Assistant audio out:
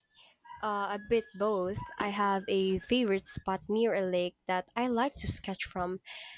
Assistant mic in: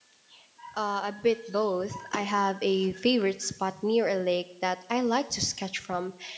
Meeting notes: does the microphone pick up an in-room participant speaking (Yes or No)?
No